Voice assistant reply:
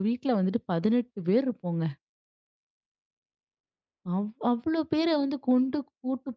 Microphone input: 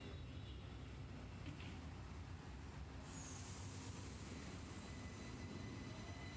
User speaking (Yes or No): No